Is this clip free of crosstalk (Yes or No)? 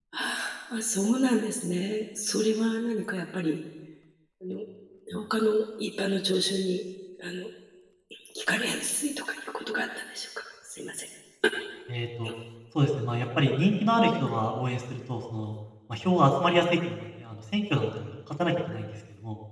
Yes